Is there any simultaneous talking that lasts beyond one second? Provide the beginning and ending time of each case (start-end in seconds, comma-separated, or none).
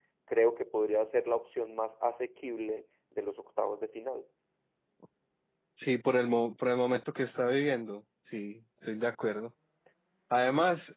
none